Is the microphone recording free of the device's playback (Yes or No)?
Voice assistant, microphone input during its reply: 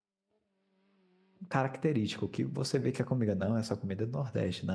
Yes